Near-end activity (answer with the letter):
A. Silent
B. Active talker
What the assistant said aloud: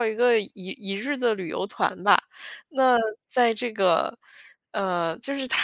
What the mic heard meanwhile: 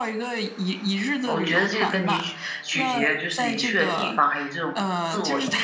B